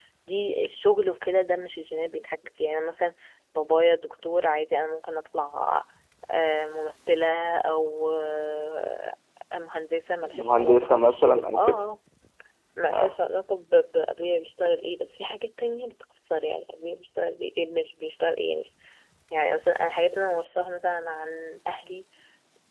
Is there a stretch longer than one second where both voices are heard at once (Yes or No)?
Yes